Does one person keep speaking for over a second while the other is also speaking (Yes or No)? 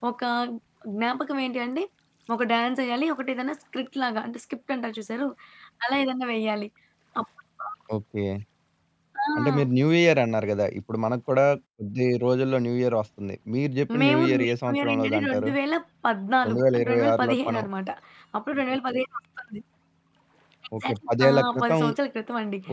Yes